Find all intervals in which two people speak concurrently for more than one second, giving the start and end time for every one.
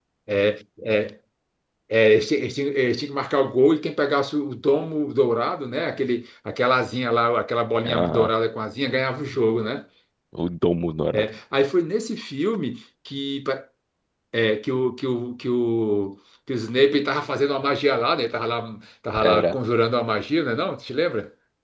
none

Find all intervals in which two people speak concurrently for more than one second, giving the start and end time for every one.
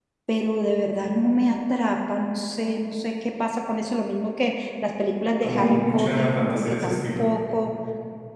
5.4-7.3

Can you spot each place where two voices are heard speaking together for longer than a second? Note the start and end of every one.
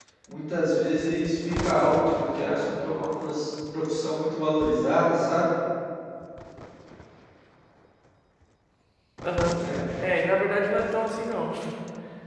none

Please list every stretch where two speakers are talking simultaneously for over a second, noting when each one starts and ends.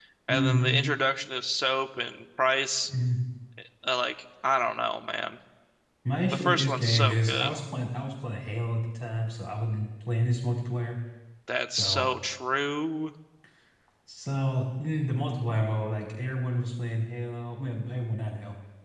6.3-7.5

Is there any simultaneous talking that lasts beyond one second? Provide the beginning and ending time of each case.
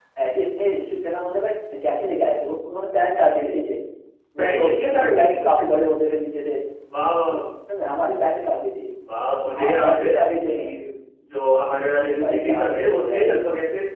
4.4-5.8, 9.6-10.8, 12.0-13.4

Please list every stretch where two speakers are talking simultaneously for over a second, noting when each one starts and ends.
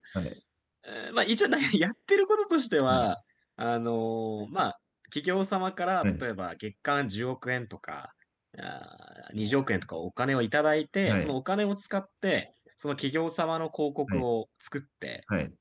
none

